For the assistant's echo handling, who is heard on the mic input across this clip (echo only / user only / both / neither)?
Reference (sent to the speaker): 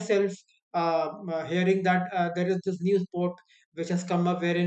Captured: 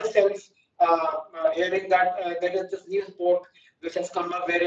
echo only